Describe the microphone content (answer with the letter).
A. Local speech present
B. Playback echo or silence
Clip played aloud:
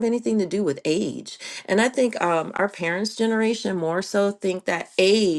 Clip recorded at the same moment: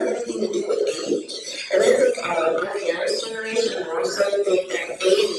B